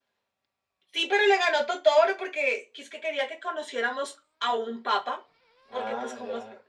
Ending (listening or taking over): listening